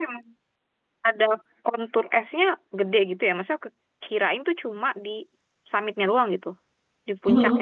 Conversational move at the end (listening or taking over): listening